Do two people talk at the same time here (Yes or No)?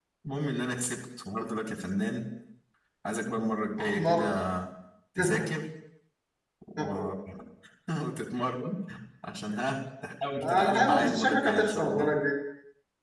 Yes